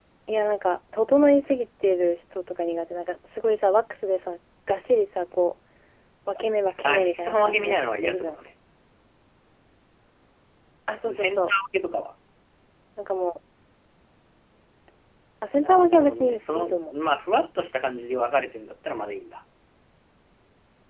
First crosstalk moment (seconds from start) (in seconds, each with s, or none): 6.8 s